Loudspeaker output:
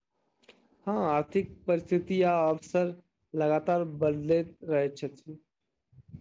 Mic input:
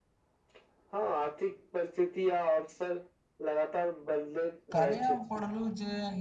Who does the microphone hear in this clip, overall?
both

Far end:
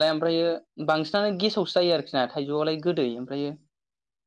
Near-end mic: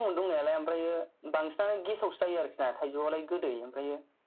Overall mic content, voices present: echo only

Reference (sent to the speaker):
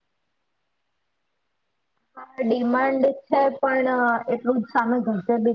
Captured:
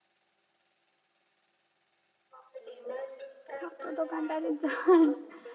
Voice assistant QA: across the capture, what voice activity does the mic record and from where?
both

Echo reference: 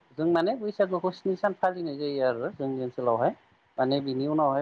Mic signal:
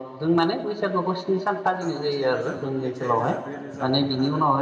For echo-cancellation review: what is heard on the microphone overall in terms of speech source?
both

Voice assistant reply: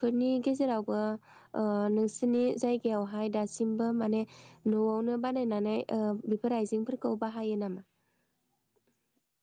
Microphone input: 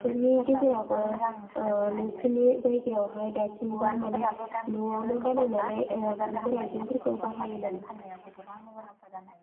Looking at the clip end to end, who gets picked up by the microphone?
both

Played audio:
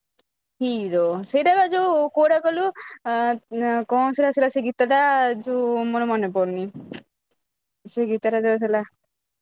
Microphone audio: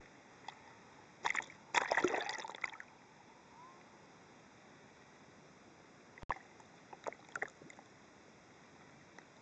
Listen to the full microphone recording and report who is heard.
neither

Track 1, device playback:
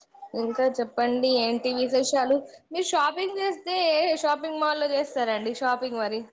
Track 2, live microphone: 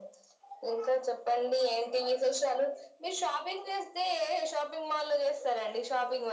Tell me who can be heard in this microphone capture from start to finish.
echo only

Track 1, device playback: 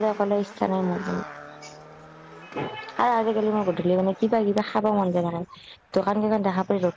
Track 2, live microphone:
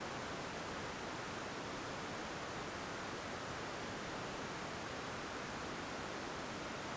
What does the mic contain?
neither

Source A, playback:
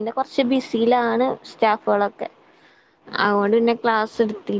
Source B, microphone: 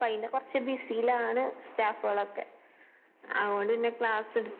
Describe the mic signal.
echo only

